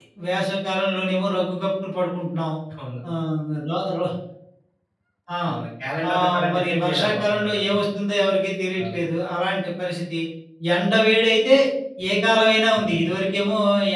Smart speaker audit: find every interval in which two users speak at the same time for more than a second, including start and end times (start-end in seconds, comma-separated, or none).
6.1-7.7